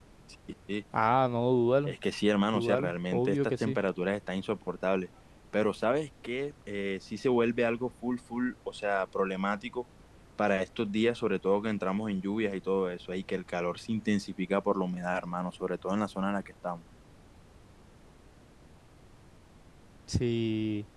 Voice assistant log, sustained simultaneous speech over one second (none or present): present